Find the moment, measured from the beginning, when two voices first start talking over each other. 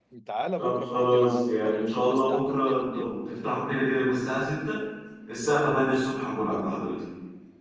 0.6 s

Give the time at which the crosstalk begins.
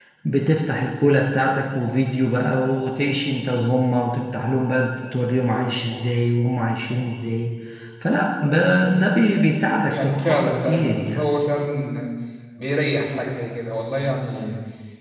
9.9 s

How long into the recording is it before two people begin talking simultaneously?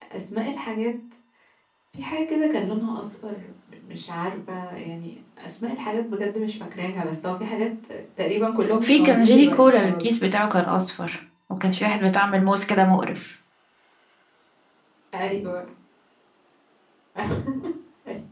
8.8 s

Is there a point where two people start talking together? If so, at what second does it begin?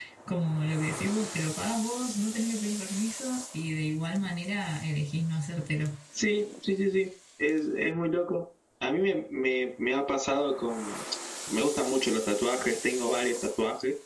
none

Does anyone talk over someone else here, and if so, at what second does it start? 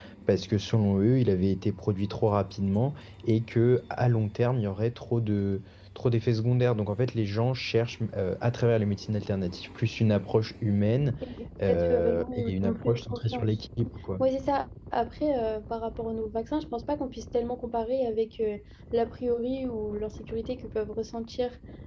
11.7 s

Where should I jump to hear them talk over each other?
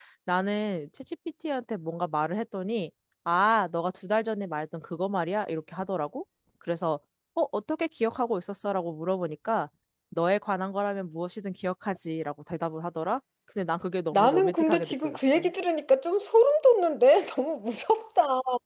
14.1 s

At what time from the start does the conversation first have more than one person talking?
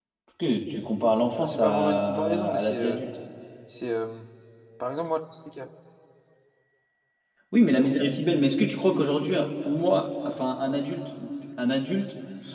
1.4 s

